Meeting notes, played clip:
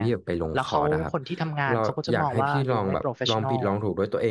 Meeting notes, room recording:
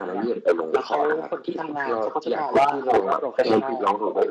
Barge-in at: none

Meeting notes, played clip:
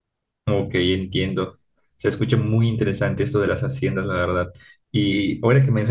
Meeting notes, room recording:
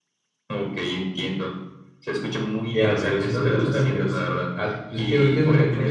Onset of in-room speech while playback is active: 2.7 s

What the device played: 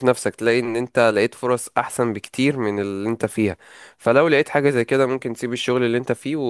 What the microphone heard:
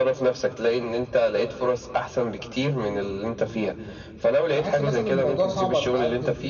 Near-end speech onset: 4.5 s

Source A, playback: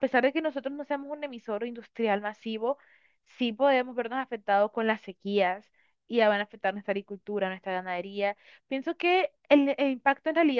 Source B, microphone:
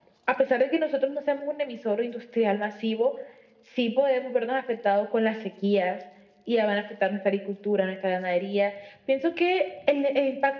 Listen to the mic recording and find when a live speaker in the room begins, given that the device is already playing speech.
none

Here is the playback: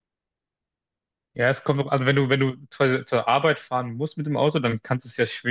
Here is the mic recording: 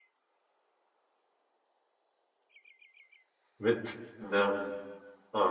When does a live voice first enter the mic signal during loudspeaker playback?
3.6 s

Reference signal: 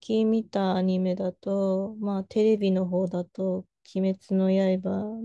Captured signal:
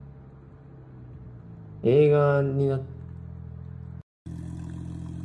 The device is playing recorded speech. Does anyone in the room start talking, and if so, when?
1.8 s

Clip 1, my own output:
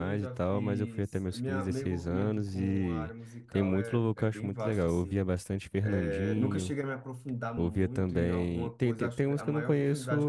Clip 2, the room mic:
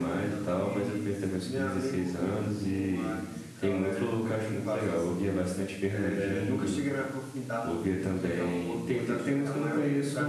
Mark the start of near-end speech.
none

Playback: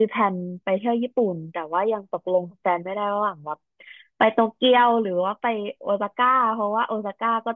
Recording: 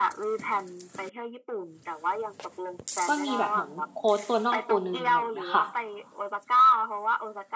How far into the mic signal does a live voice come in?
3.1 s

